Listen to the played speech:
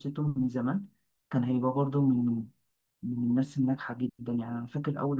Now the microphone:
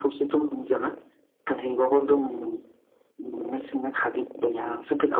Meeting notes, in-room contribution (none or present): none